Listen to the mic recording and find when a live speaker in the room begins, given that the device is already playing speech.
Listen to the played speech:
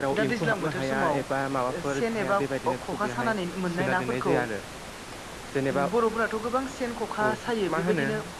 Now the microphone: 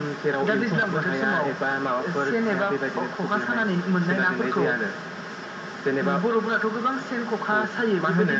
none

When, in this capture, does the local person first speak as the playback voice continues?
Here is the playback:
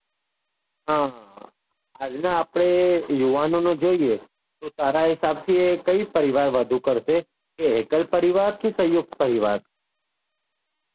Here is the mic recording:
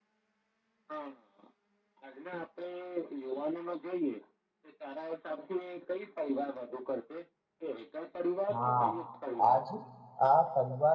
8.5 s

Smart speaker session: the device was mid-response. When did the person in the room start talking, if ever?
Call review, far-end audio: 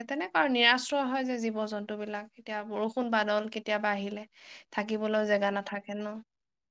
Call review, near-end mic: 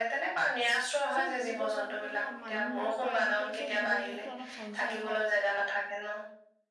1.1 s

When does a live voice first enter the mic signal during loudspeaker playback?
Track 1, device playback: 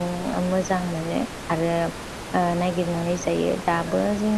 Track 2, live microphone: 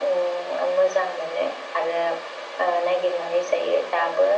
none

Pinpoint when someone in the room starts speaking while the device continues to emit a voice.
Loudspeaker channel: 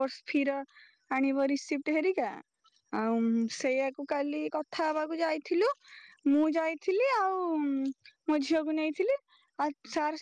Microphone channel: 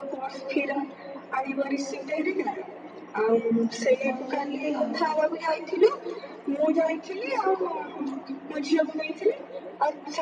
4.0 s

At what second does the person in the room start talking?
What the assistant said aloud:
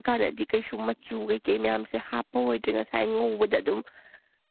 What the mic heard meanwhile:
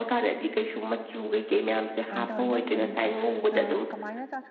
2.0 s

